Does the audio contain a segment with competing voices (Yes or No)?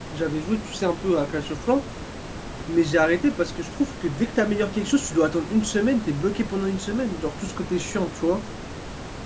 No